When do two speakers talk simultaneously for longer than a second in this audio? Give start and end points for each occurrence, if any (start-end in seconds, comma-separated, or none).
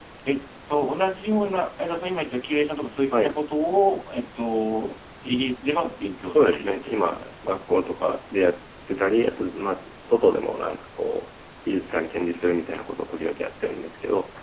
6.3-7.6